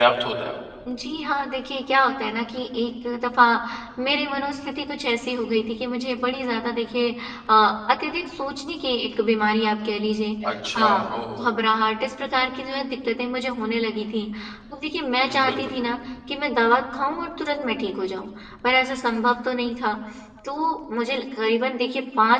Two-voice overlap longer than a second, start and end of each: none

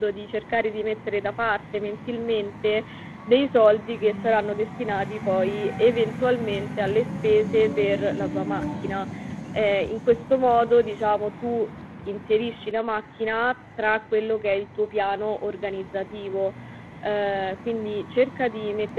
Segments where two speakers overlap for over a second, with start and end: none

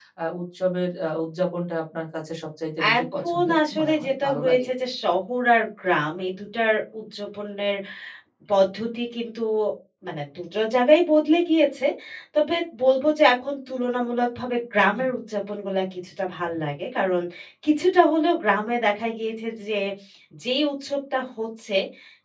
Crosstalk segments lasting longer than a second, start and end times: 3.0-4.7

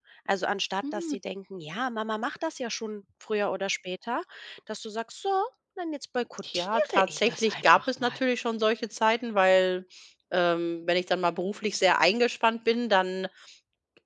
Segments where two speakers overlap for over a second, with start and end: 6.5-8.2

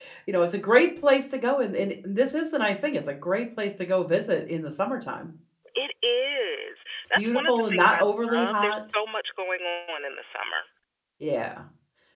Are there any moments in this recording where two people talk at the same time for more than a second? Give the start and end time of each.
7.2-8.8

